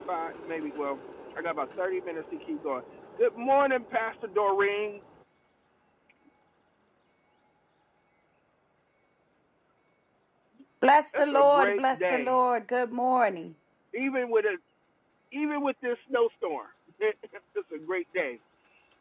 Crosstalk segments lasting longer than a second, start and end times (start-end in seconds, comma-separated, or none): 11.1-12.3